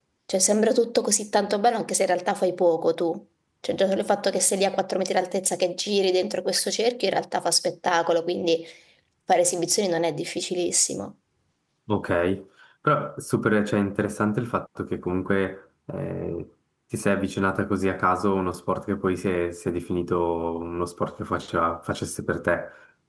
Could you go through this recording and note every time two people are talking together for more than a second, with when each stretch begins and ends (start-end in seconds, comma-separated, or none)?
none